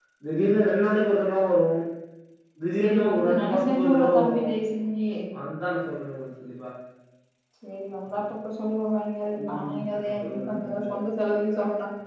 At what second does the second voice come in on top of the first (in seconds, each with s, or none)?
2.8 s